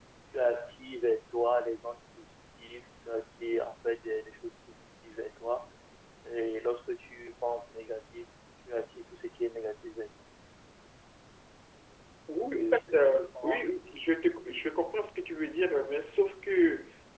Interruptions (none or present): present